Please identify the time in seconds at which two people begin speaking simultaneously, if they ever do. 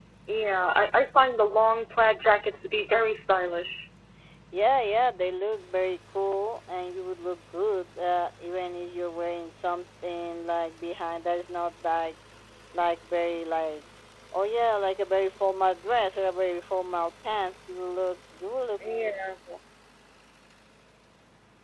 none

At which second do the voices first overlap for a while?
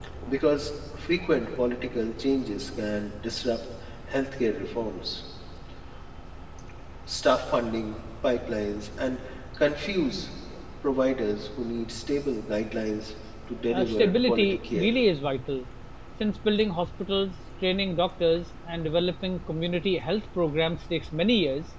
13.7 s

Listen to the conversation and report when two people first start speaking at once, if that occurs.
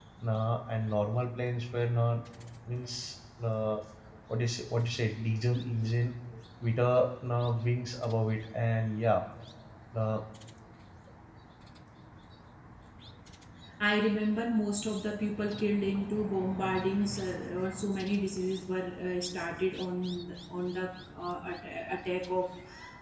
none

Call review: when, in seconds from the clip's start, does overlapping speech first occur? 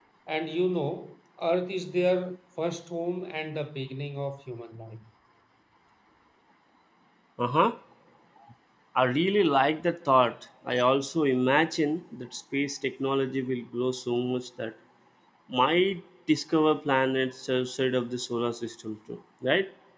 none

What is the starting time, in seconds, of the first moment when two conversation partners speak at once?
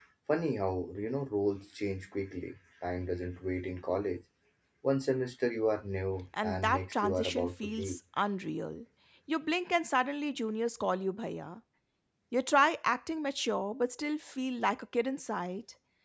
6.3 s

